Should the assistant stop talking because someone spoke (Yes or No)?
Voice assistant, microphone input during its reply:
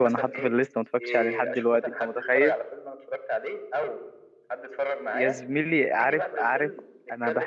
Yes